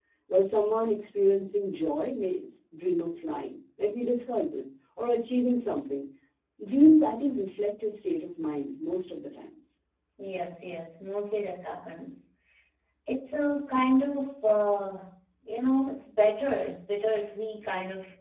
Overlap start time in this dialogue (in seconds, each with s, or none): none